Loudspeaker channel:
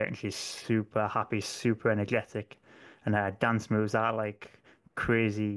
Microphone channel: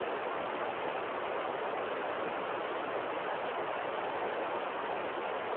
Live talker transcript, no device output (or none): none